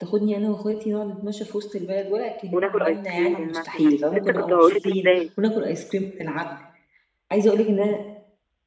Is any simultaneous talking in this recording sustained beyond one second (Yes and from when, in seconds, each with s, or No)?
Yes, from 2.5 s